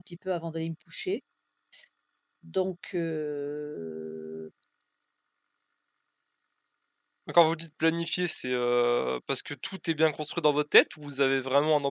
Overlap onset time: none

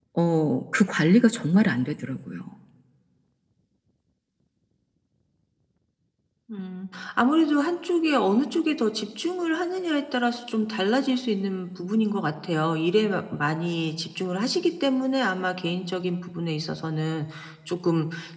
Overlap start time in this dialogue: none

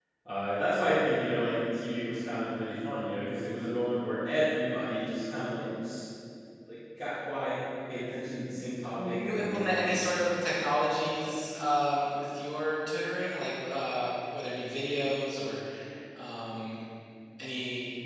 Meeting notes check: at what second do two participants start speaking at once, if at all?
9.0 s

